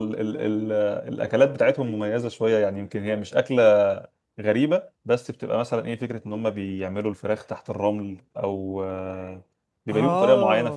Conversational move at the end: taking over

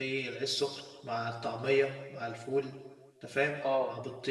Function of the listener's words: listening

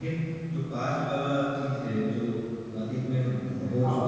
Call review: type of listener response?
taking over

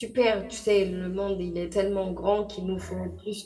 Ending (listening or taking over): listening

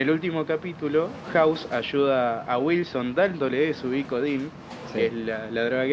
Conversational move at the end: listening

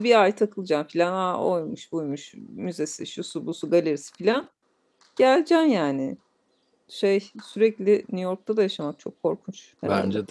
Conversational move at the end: taking over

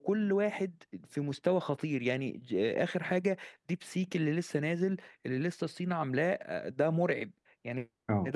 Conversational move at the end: listening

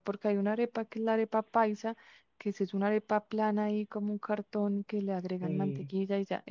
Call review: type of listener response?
listening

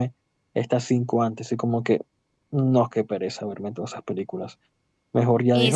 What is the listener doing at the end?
listening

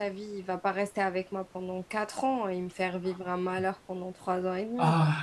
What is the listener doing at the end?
taking over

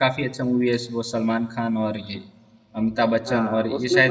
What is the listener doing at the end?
taking over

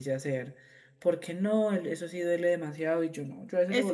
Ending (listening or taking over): taking over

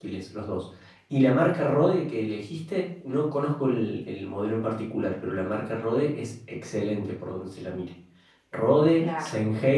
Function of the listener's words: listening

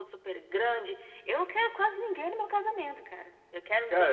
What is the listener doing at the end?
taking over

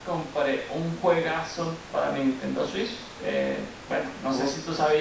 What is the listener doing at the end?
listening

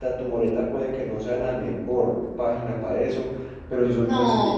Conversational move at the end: taking over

